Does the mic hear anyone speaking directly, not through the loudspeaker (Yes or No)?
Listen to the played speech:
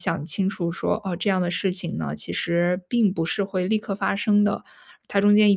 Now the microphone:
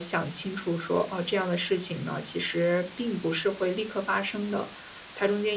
No